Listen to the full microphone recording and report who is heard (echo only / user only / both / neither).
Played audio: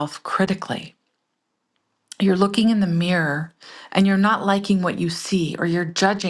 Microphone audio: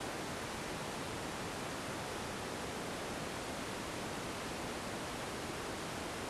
neither